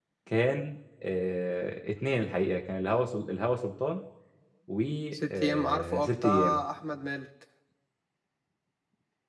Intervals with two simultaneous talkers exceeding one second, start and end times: 5.3-6.6

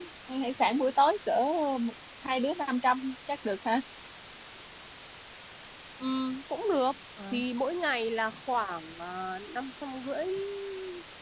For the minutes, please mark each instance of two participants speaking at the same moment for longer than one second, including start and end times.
none

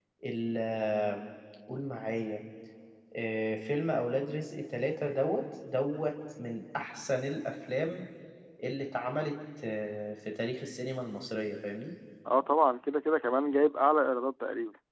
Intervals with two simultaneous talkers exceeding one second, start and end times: none

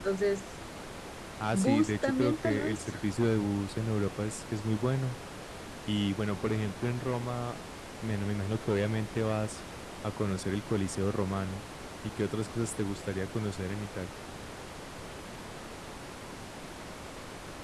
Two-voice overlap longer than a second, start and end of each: 1.5-2.9

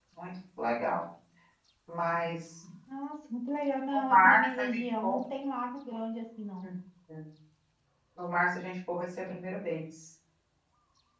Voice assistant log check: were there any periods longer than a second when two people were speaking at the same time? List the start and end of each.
3.9-5.2

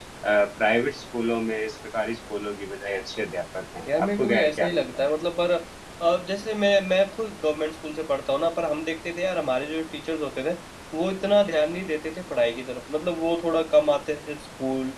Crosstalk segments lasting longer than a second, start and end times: 3.9-5.1

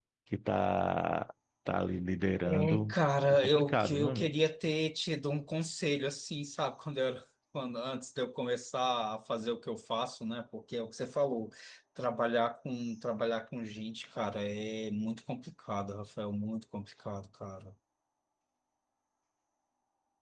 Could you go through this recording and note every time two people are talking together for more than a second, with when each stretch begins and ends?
2.5-4.3

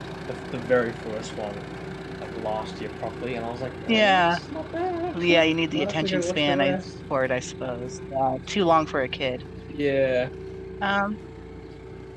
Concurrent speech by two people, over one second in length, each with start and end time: 5.2-6.8

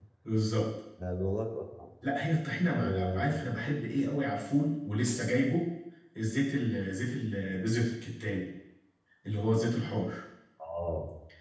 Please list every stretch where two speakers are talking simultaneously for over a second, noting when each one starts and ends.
none

